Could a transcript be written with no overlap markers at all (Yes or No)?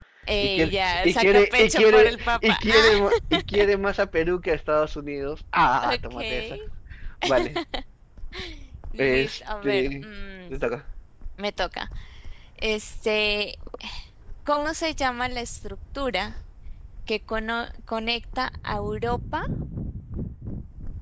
No